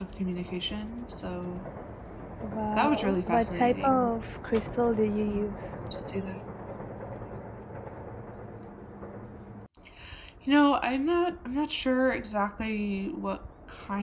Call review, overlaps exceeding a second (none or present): present